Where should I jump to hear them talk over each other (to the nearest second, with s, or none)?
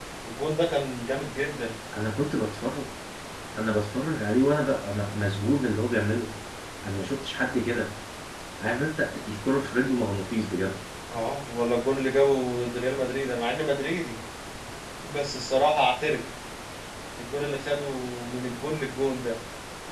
none